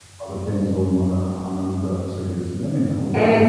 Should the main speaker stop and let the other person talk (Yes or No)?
Yes